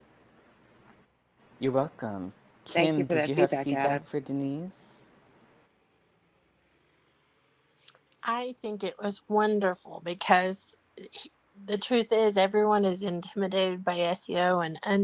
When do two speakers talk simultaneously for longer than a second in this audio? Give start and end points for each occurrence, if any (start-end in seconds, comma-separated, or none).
2.8-4.0